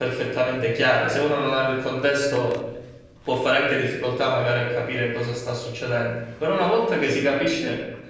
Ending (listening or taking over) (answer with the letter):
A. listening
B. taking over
A